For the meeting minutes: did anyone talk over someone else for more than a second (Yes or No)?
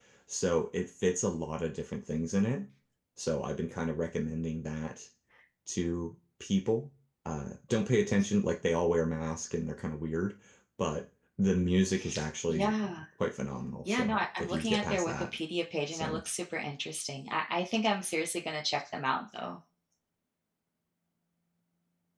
Yes